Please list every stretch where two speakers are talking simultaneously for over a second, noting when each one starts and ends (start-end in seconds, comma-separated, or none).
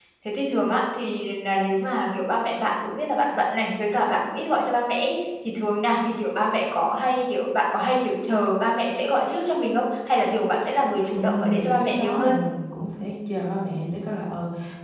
11.1-12.4